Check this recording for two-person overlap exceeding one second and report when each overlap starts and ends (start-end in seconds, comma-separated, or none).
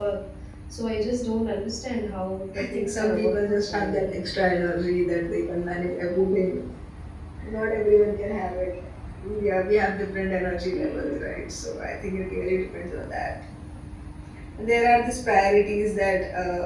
2.6-4.0